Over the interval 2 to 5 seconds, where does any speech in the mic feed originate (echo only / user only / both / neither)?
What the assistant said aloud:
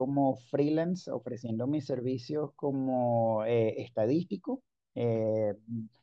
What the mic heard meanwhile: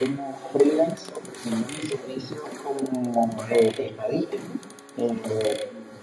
echo only